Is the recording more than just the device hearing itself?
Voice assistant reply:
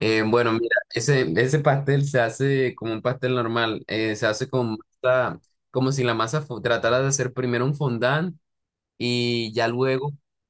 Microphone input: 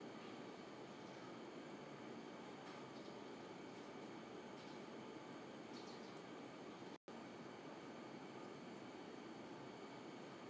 No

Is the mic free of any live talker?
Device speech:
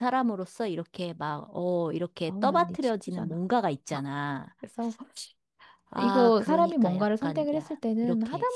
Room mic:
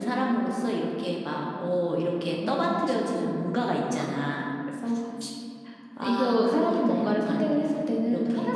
Yes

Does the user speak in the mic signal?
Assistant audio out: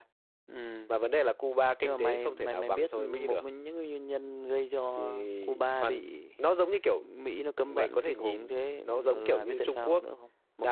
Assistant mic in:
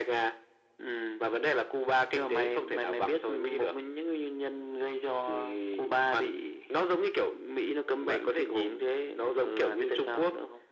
No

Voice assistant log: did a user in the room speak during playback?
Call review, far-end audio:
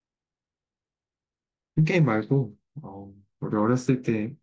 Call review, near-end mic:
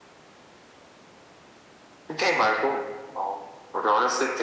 No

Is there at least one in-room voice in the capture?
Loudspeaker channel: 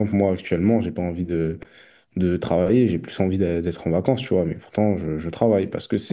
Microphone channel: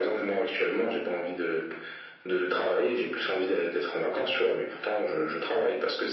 No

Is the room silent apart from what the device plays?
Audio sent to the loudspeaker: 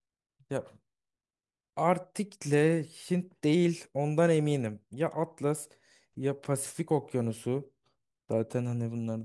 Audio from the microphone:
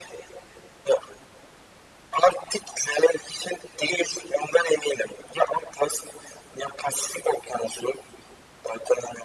Yes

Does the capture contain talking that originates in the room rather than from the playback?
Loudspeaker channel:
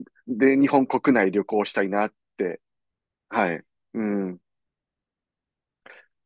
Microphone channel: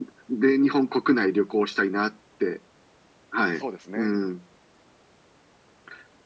Yes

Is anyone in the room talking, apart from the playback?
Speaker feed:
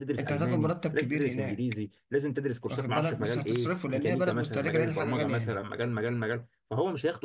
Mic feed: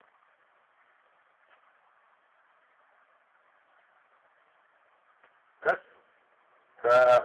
Yes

